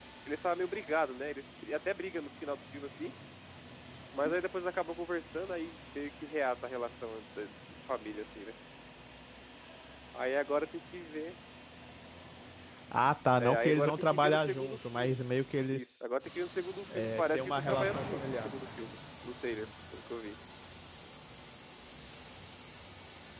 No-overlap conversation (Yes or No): No